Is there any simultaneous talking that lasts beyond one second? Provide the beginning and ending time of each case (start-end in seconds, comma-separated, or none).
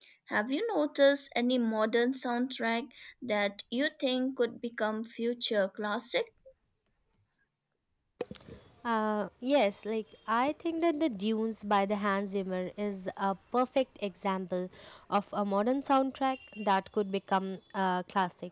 none